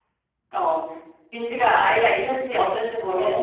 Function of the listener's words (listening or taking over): listening